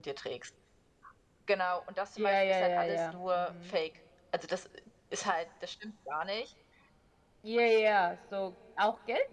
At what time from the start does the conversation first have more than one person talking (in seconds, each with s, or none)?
2.2 s